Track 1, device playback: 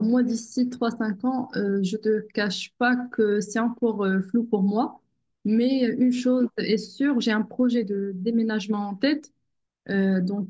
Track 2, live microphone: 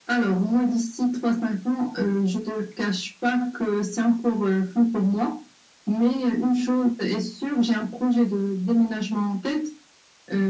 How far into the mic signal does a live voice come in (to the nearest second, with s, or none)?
none